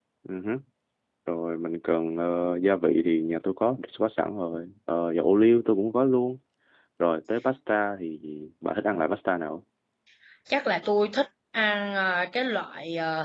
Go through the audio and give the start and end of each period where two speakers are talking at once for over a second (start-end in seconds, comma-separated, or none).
none